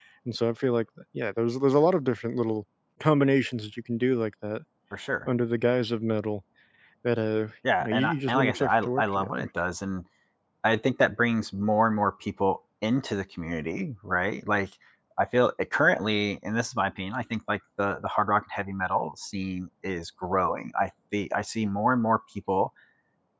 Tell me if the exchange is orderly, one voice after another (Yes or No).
No